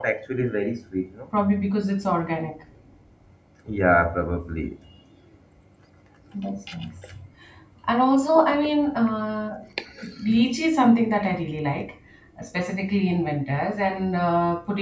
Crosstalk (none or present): none